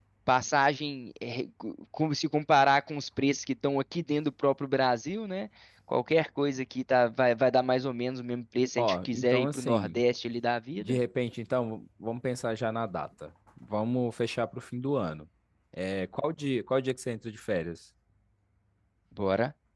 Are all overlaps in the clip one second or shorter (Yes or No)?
No